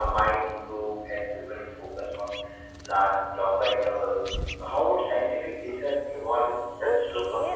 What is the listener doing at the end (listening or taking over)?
taking over